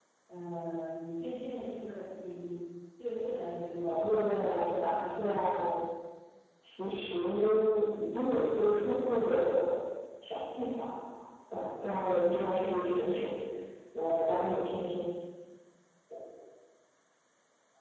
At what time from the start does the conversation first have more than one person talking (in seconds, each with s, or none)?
3.7 s